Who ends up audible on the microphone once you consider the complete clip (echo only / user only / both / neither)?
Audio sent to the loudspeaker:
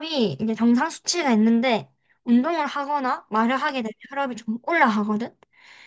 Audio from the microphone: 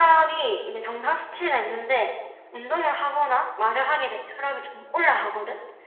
echo only